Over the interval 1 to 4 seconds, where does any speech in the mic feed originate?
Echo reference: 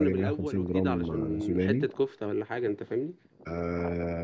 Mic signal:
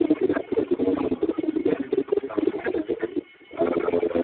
echo only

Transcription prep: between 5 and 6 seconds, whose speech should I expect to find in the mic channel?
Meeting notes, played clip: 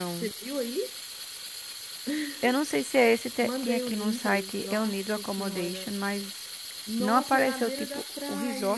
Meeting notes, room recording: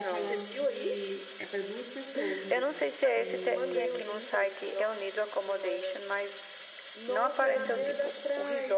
echo only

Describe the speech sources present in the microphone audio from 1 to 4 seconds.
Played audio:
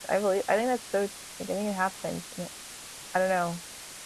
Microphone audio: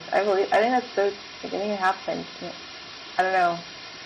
echo only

